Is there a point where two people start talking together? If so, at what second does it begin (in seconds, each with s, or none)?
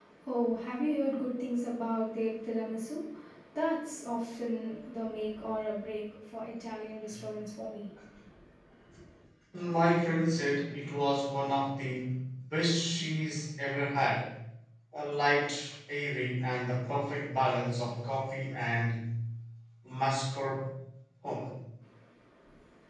none